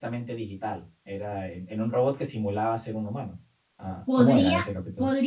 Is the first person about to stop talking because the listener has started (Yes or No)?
Yes